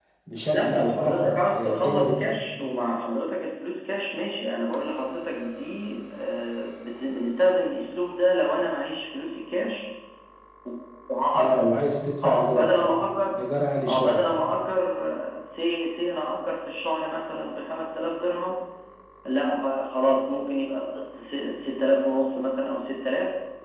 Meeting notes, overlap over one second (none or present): present